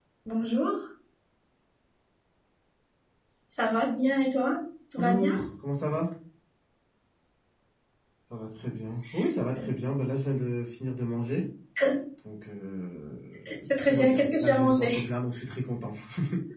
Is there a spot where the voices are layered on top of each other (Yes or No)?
Yes